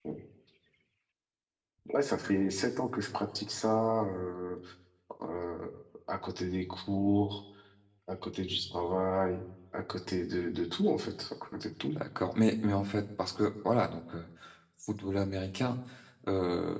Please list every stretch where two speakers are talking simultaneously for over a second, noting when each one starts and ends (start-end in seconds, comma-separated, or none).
none